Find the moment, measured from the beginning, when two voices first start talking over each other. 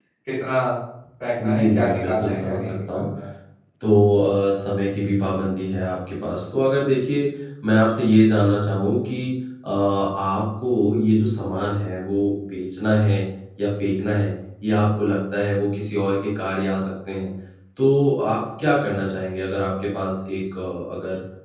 1.4 s

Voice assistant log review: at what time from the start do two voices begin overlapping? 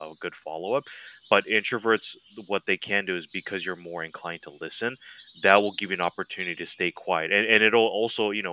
none

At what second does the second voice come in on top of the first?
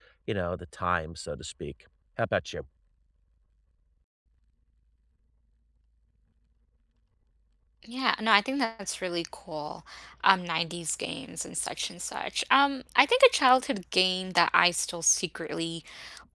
none

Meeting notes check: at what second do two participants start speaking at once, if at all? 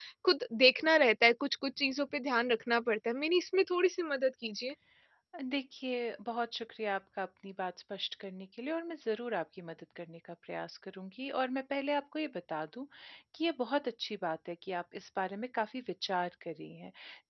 none

